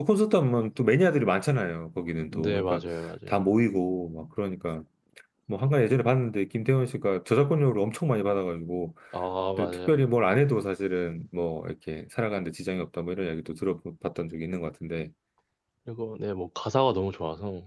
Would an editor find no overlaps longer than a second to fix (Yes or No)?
Yes